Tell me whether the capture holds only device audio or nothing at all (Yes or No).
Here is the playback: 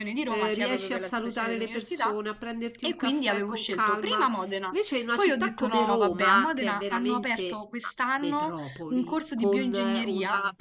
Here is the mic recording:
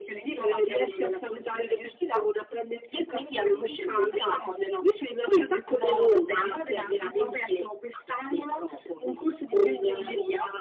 No